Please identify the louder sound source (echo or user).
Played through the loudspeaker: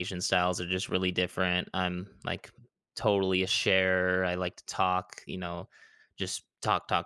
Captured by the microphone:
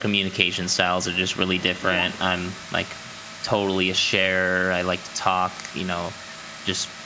echo